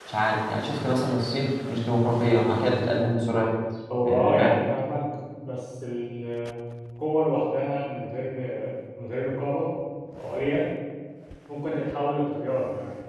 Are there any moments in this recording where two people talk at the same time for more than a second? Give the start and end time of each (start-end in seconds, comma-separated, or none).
none